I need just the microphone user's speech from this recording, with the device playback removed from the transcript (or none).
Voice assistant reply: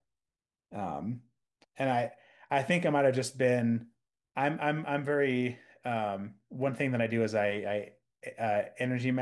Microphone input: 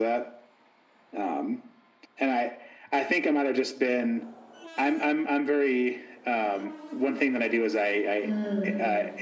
Mm.